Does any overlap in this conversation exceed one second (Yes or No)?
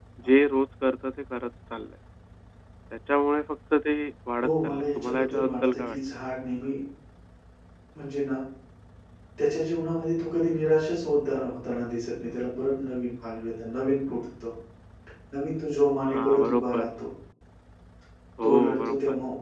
Yes